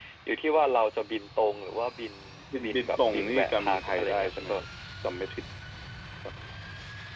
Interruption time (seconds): 2.6 s

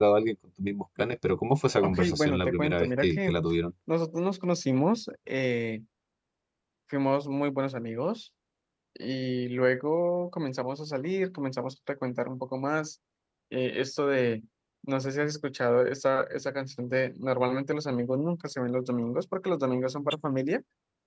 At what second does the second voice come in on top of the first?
1.8 s

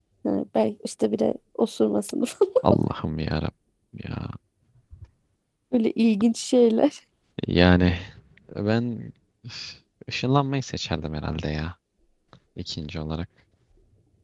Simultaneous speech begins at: none

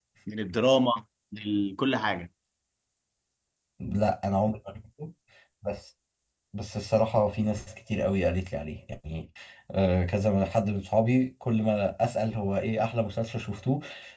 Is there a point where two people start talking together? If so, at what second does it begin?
none

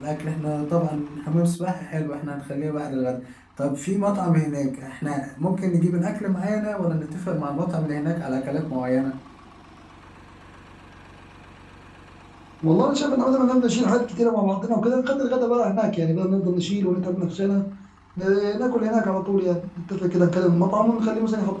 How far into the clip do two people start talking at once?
none

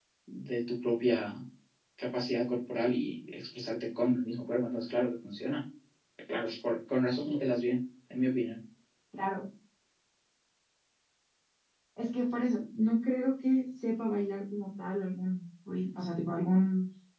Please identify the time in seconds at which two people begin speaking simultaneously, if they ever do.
none

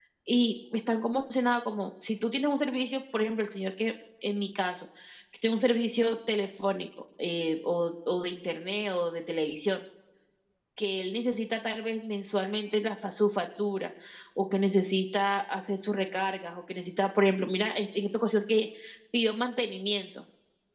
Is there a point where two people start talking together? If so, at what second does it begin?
none

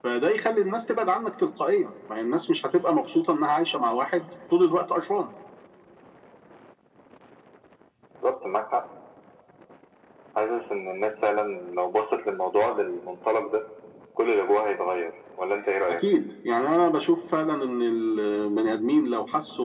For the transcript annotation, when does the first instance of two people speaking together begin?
none

